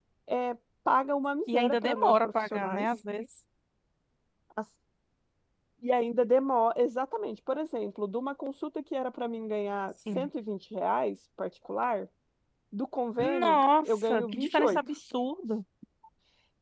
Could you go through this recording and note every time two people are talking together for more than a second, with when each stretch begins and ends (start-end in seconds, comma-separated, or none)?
1.5-2.9, 13.2-14.8